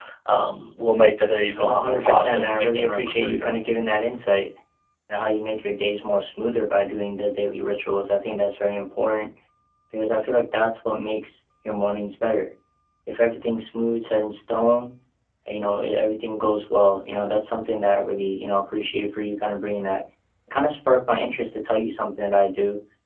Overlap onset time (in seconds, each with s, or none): 1.6 s